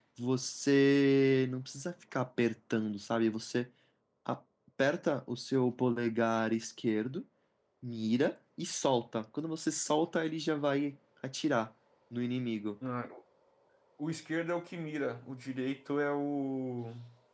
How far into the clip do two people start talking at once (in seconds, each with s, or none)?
none